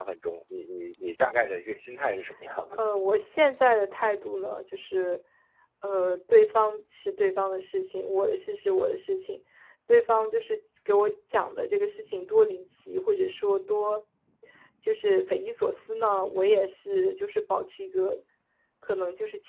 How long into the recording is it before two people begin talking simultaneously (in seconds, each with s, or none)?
none